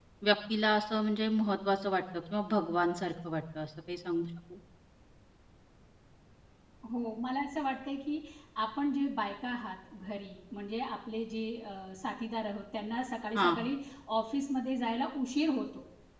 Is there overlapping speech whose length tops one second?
No

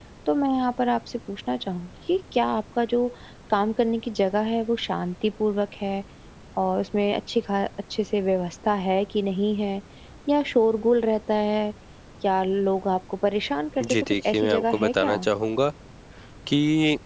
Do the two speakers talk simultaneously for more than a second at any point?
Yes, from 13.8 s

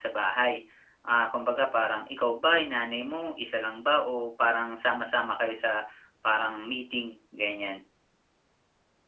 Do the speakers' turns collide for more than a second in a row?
No

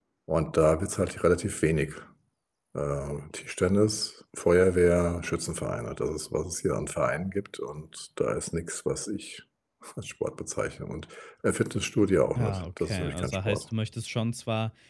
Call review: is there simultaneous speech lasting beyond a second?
Yes, from 12.4 s

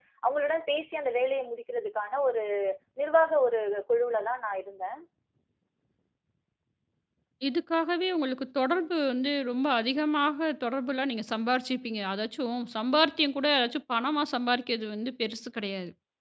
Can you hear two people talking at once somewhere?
No

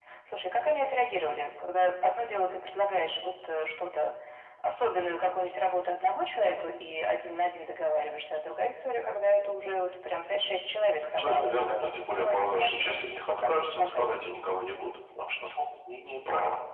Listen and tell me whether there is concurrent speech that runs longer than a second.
Yes, from 11.2 s

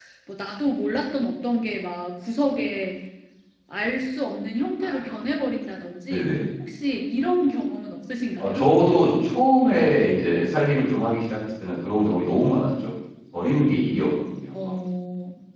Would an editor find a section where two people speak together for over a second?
No

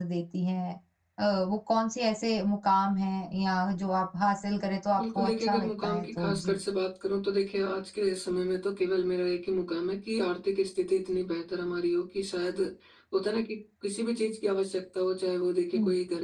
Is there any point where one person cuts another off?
Yes, from 5.0 s

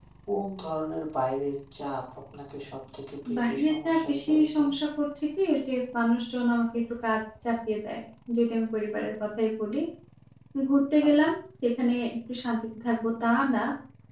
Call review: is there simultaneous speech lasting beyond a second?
Yes, from 3.3 s

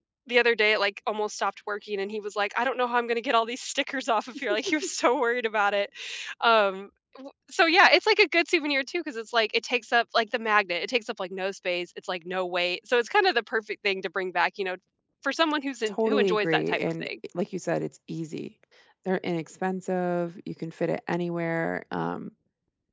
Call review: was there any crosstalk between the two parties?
Yes, from 15.9 s

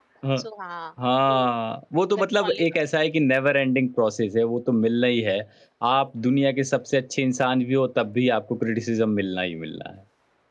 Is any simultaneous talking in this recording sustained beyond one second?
No

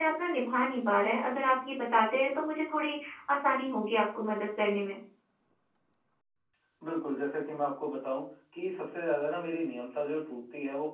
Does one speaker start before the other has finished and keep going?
No

